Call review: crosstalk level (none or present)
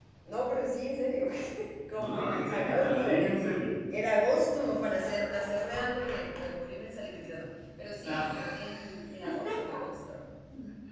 present